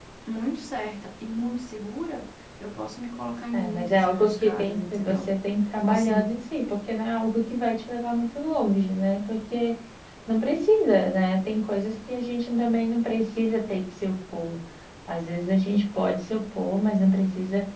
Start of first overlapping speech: 3.5 s

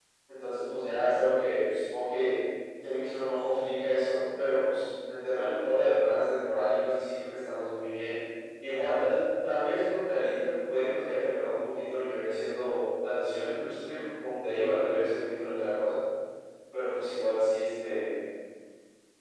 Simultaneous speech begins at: none

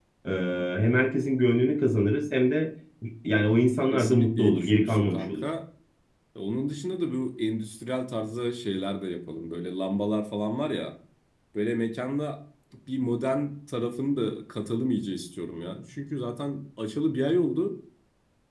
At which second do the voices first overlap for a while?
3.9 s

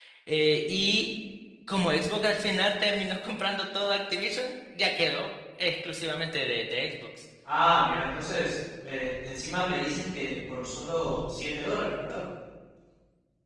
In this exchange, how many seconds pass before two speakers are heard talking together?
none

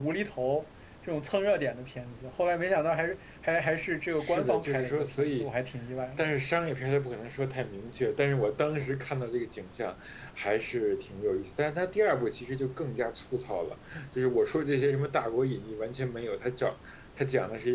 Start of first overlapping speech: 4.2 s

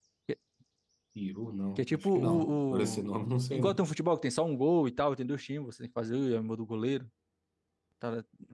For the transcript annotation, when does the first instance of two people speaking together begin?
1.8 s

